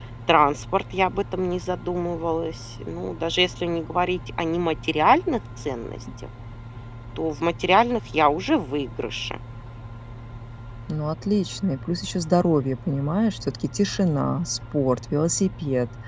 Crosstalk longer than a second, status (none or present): none